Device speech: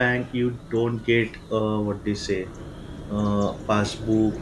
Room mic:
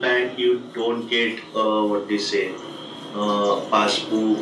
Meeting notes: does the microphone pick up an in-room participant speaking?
No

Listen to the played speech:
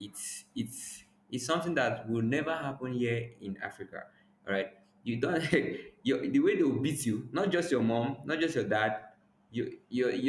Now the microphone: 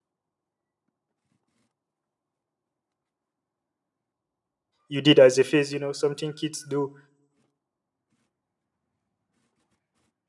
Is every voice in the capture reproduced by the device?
No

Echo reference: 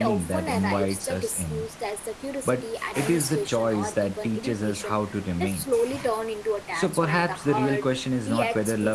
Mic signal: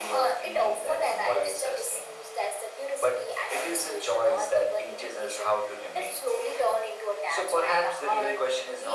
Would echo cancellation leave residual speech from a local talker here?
No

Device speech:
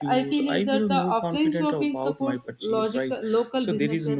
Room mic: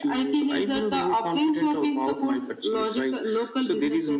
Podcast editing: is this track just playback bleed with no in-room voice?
Yes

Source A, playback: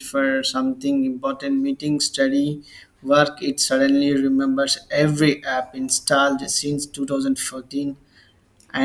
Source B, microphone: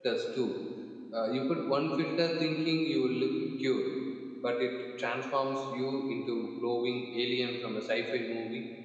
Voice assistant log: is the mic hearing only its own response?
No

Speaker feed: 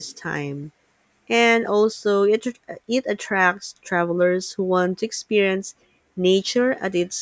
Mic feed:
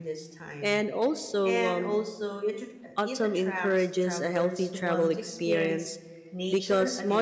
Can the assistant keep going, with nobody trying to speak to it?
No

